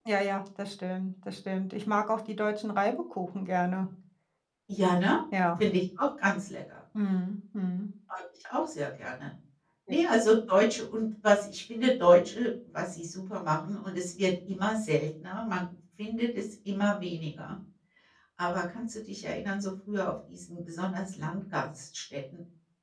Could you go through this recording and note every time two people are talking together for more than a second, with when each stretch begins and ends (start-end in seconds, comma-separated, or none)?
none